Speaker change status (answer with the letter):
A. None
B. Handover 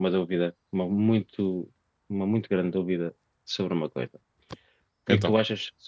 A